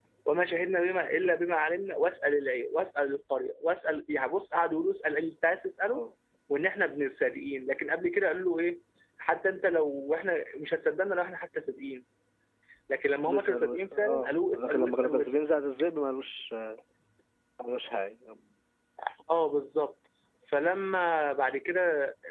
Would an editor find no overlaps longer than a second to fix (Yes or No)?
No